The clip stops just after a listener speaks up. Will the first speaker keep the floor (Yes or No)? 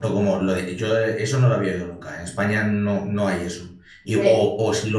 Yes